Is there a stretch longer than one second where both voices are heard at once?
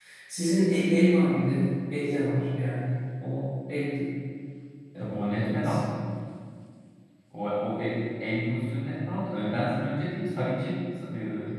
No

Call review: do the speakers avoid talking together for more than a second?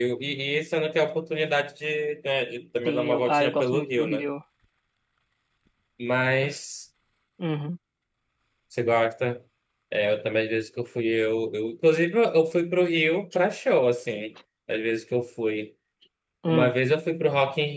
No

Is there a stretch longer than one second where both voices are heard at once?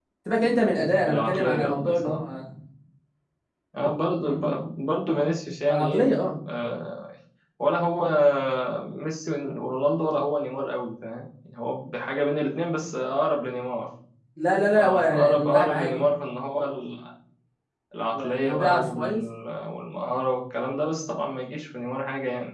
Yes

